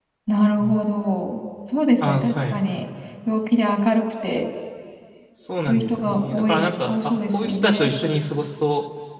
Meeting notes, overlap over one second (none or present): present